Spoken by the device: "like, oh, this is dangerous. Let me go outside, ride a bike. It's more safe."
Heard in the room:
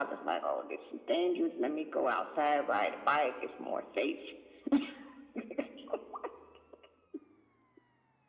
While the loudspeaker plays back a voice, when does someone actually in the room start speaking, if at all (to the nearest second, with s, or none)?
none